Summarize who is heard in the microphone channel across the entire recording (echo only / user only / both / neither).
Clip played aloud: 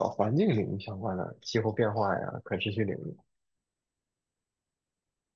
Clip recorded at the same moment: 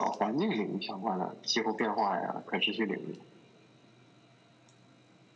echo only